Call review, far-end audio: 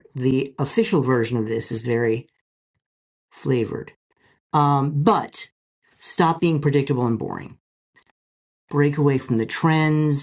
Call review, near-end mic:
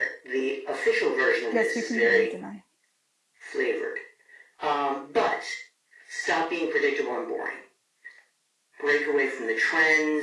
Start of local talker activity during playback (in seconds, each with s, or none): 1.5 s